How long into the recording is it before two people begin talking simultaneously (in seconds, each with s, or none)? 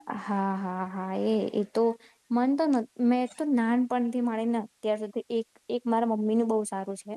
none